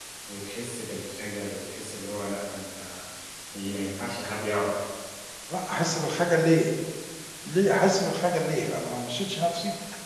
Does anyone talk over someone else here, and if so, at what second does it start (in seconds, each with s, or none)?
none